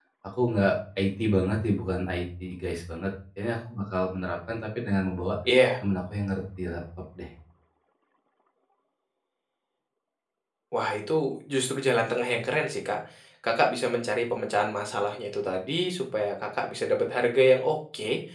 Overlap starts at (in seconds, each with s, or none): none